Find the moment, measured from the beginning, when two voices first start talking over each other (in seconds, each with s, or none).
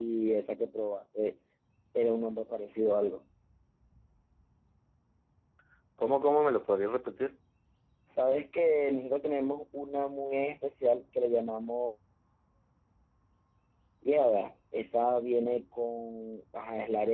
none